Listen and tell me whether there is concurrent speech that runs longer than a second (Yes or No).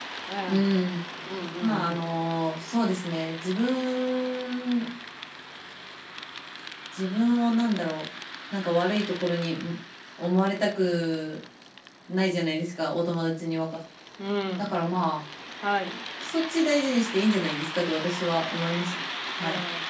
No